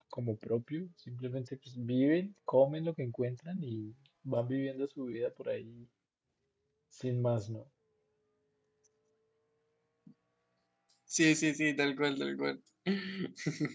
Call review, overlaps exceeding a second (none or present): none